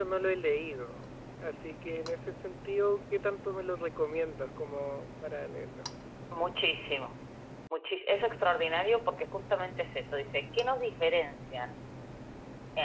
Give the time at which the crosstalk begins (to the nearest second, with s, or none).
none